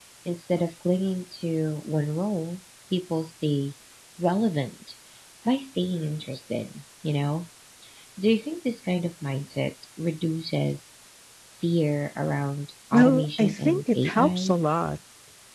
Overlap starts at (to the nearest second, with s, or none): 13 s